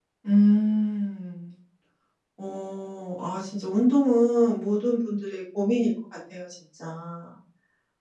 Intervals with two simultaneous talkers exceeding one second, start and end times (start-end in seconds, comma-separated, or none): none